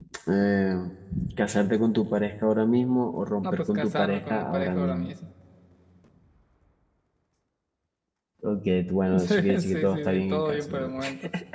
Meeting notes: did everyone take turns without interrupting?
No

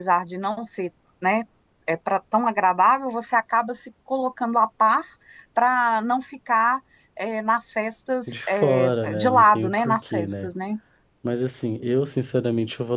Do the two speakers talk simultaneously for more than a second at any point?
Yes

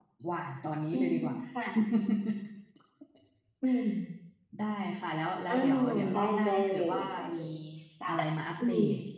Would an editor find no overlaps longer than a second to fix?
No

